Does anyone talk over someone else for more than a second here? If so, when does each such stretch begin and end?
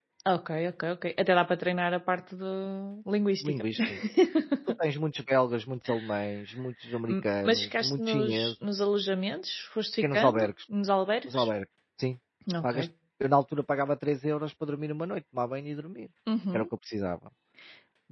7.1-8.5

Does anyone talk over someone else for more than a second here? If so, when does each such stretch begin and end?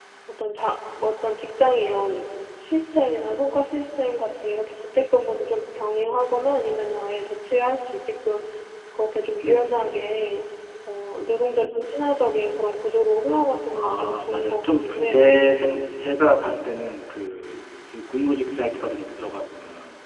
13.8-15.3

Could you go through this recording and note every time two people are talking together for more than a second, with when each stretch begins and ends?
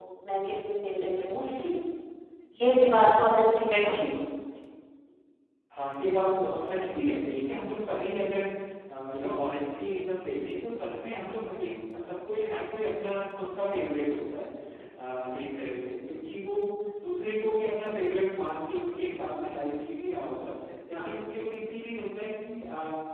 none

